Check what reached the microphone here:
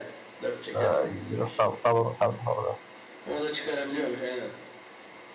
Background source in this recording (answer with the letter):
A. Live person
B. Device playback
B